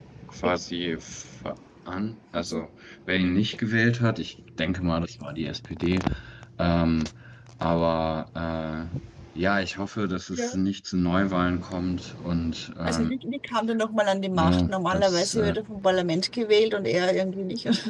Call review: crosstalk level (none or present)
present